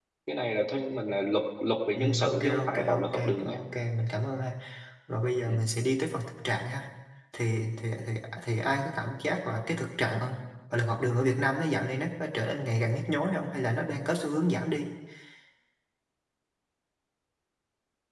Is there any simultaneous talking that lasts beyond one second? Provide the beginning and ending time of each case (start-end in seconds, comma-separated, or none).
2.0-3.6